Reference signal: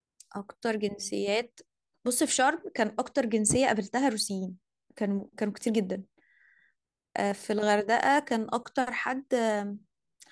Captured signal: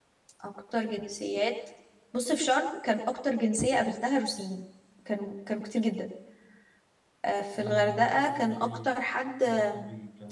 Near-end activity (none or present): present